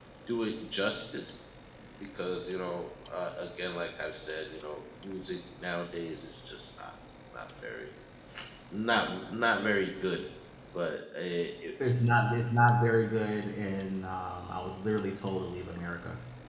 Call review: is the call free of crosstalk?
Yes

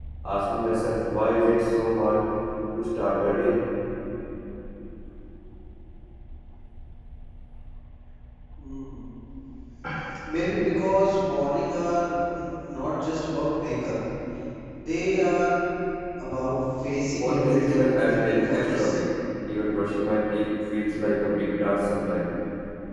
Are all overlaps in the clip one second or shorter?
No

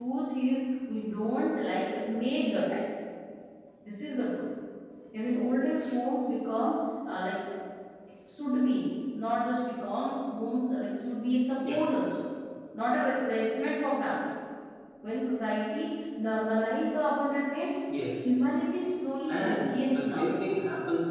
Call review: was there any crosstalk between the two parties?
Yes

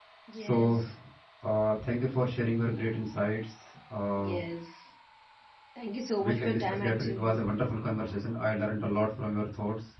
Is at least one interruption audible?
Yes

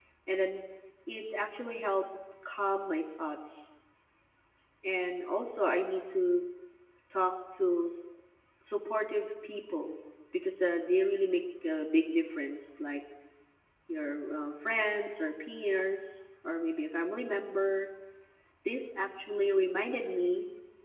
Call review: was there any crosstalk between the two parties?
No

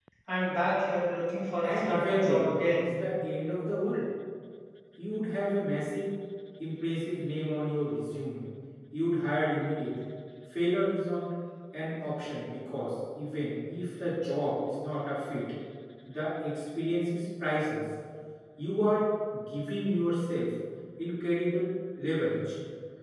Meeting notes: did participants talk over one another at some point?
Yes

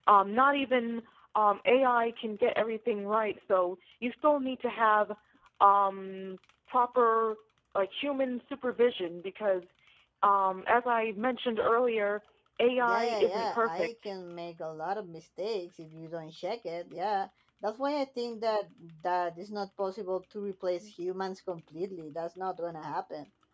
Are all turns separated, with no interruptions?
No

